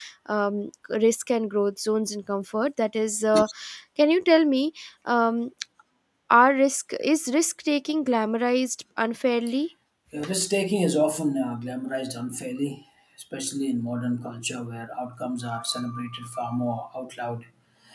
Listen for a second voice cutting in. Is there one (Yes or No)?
No